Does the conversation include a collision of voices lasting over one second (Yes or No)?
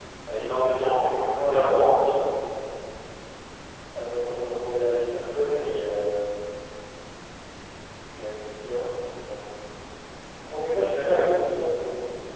Yes